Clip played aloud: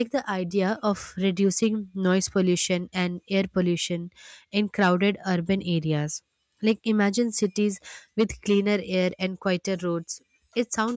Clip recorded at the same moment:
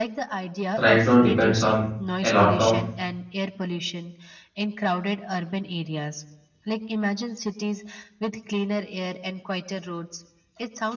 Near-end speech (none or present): present